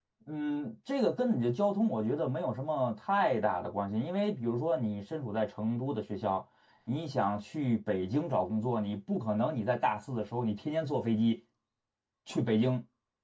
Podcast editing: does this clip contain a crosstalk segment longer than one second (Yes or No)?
No